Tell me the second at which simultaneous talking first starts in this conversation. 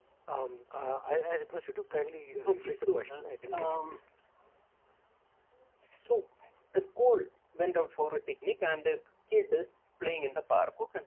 2.4 s

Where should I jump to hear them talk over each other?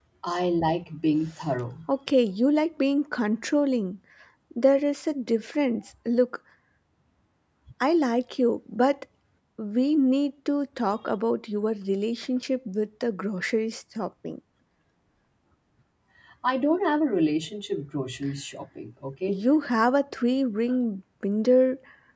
none

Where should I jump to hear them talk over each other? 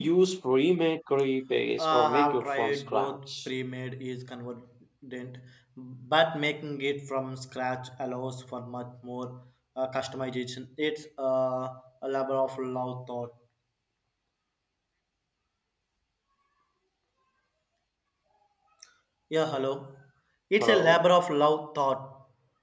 1.8 s

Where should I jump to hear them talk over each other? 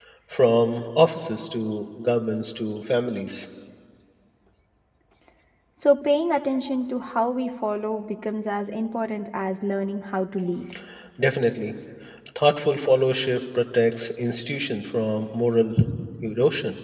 none

